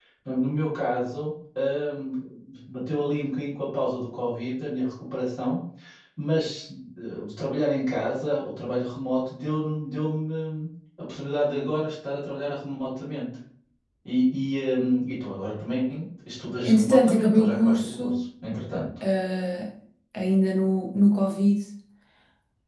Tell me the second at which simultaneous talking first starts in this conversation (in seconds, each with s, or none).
16.6 s